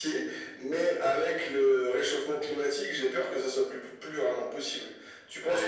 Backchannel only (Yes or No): No